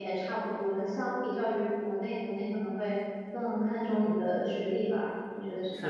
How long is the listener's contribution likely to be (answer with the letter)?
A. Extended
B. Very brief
A